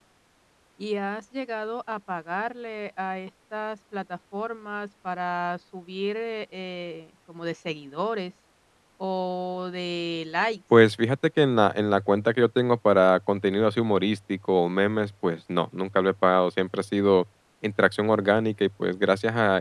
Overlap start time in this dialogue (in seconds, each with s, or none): none